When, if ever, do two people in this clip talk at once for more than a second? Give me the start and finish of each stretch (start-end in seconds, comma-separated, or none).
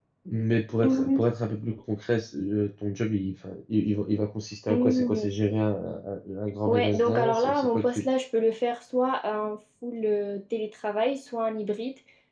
6.7-8.0